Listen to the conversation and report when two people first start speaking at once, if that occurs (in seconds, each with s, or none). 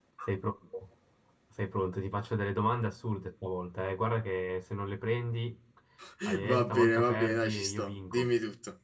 6.5 s